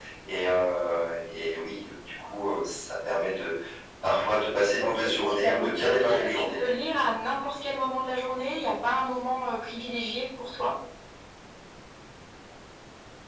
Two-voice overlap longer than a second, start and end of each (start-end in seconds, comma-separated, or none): 4.8-6.8